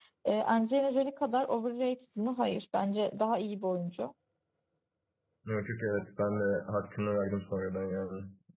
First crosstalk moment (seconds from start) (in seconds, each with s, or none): none